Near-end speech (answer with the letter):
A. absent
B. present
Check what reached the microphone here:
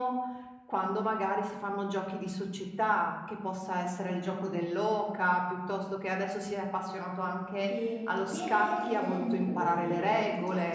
B